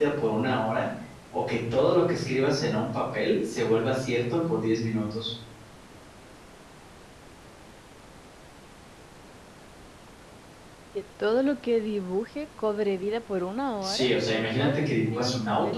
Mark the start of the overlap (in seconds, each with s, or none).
13.8 s